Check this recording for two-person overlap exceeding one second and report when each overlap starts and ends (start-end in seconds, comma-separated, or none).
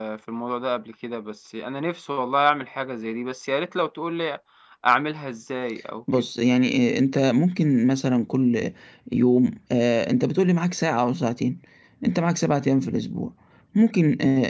none